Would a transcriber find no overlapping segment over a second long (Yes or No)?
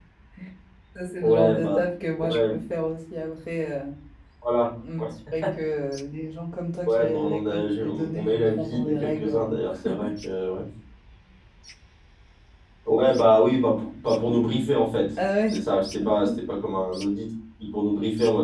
No